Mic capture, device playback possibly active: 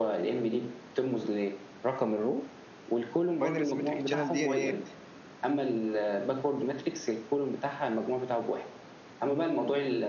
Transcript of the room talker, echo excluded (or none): الباينري سيمتريك تشانل دي ايه